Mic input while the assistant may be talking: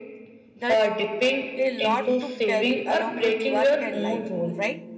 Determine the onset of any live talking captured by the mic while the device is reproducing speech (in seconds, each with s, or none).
0.6 s